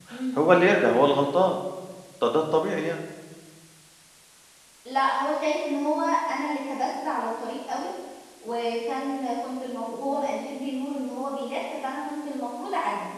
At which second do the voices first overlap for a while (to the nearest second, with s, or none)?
none